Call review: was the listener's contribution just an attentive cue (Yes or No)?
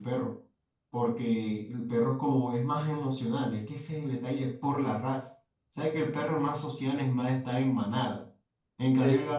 Yes